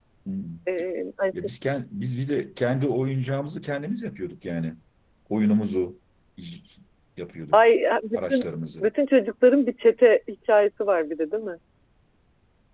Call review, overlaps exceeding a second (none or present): none